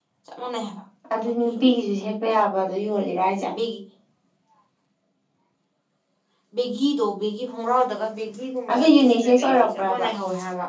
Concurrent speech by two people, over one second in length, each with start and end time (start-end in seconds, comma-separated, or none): 8.7-10.1